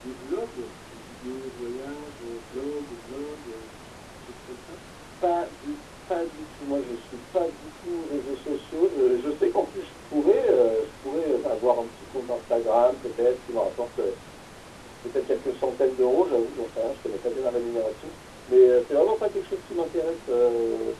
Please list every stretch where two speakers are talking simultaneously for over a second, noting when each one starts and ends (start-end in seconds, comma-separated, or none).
none